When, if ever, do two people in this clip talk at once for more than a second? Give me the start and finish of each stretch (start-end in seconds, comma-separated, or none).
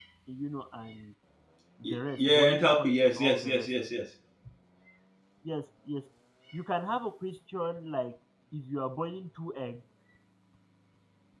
1.9-3.7